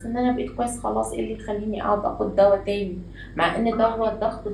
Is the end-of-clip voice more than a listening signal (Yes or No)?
No